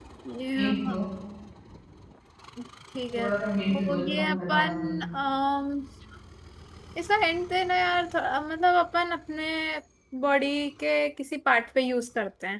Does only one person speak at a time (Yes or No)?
No